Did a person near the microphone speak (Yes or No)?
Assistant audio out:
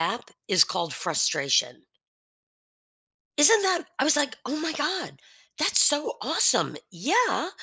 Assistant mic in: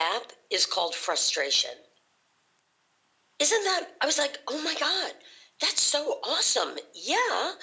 No